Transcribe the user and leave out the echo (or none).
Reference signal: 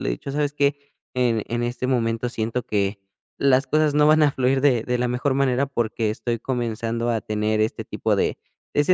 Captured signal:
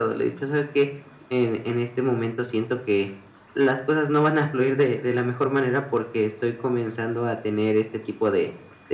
none